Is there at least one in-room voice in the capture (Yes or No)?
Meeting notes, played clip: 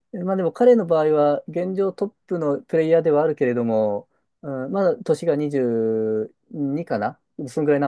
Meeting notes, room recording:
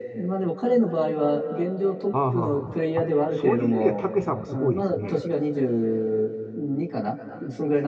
Yes